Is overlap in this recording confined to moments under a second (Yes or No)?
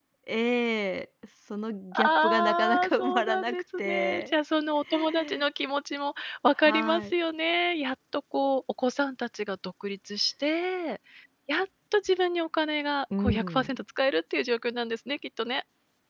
No